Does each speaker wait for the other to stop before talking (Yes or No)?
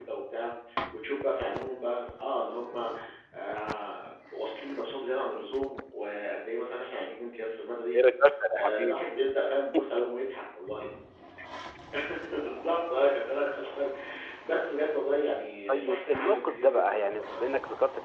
No